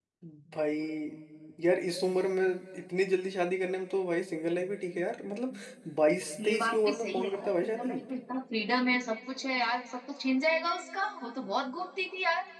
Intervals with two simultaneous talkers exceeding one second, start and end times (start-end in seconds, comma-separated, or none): 6.4-8.0